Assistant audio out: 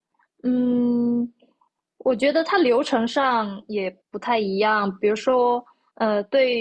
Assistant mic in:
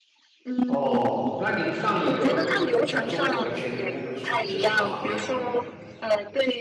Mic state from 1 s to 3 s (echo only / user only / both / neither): both